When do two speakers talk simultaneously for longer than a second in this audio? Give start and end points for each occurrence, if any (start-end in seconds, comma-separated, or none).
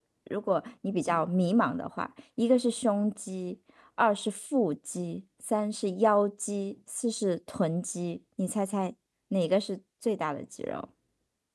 none